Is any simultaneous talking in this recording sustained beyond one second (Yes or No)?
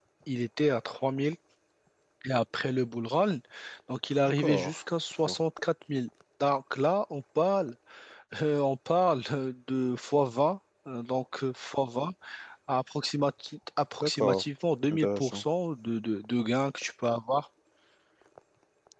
No